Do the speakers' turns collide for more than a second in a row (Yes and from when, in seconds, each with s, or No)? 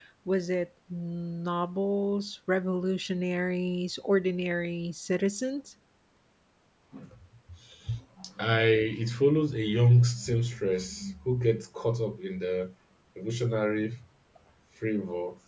No